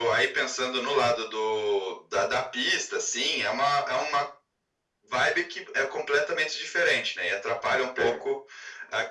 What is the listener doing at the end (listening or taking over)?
listening